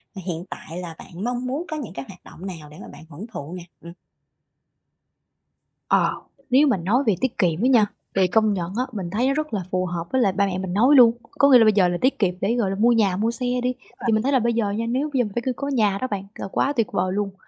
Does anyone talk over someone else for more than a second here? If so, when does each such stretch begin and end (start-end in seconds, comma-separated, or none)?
none